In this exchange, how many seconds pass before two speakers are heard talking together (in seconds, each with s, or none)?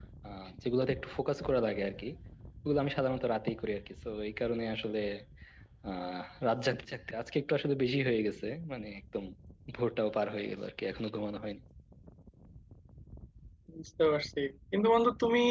none